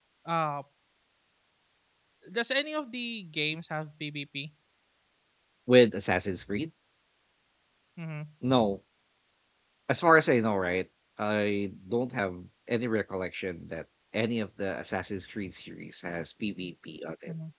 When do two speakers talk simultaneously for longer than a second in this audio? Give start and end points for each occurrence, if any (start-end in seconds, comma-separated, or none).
none